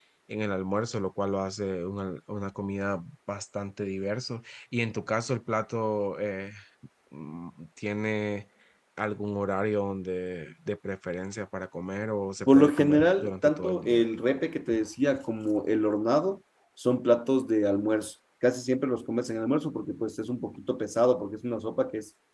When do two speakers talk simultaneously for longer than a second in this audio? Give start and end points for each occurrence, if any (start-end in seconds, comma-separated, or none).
12.5-14.1